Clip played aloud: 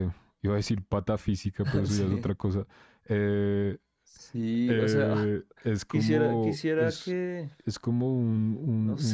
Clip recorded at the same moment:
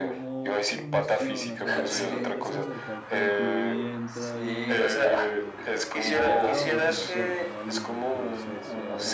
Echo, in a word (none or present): present